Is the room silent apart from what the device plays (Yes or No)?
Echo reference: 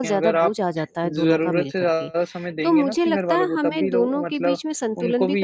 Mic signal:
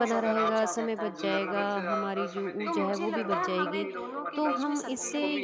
No